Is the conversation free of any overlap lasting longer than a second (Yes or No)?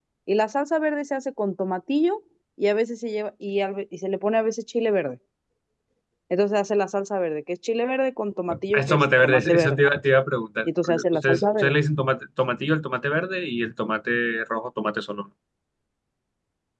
No